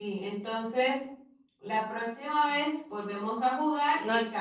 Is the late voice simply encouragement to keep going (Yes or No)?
Yes